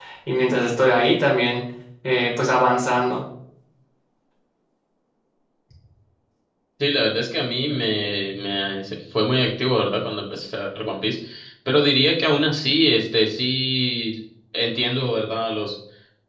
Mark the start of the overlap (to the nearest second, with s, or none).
none